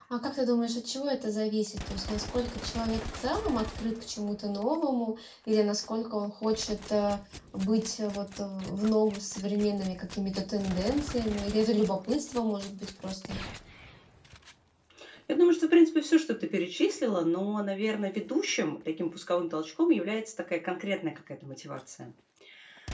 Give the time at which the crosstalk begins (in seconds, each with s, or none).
none